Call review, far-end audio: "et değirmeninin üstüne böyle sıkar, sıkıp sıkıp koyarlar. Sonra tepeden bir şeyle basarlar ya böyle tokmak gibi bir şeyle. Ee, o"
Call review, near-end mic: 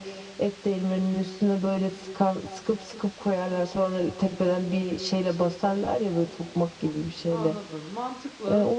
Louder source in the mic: echo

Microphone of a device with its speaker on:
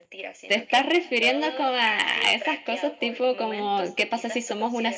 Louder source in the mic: user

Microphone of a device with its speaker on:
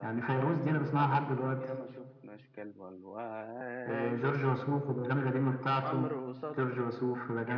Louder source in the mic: echo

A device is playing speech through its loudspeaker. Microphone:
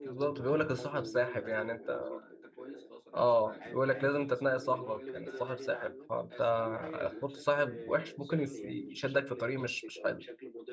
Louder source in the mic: user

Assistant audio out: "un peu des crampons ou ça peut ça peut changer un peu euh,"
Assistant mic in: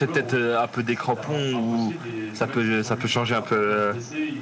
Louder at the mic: echo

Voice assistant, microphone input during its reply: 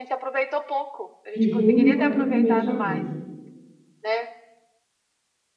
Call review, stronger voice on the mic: user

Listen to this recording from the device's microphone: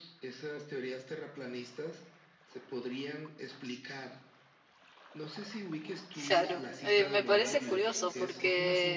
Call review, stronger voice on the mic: user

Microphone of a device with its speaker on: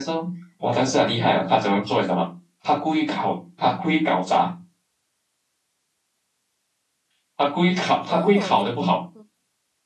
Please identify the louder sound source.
echo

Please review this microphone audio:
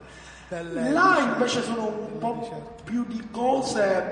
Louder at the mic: echo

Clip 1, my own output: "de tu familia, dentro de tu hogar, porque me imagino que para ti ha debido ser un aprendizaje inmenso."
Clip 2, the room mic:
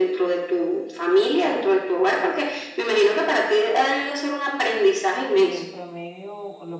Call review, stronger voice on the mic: echo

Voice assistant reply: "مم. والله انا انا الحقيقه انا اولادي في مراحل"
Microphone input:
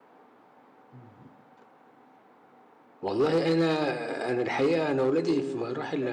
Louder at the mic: echo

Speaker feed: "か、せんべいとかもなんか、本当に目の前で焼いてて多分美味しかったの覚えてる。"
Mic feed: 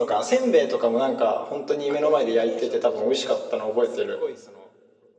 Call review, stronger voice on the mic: echo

